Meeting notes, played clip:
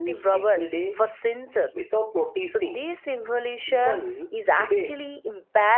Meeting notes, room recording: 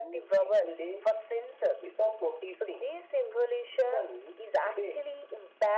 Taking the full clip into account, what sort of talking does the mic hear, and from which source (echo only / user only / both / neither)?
echo only